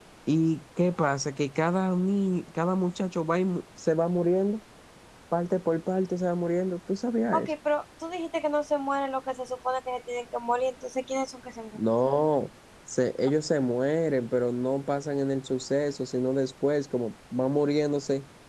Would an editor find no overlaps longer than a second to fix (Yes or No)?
Yes